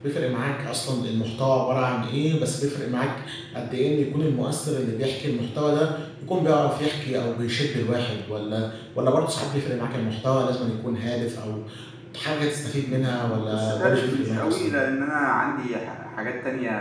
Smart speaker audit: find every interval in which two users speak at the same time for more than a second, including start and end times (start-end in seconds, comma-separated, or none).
12.8-14.8